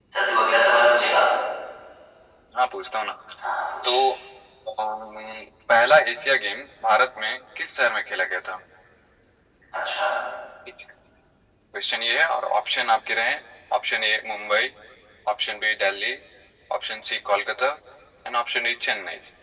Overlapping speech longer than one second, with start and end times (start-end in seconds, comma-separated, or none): none